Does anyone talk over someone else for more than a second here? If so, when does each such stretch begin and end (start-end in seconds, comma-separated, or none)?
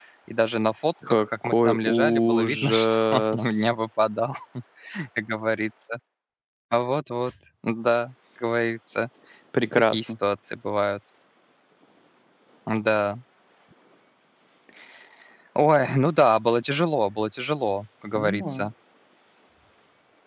1.1-3.5